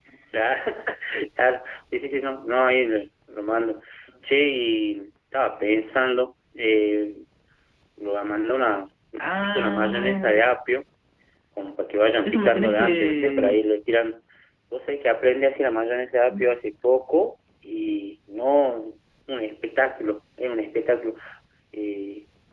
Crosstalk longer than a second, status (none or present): present